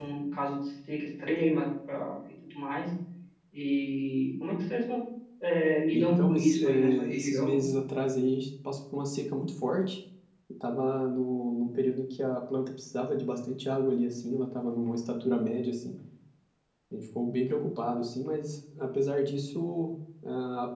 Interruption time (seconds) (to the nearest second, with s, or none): 6 s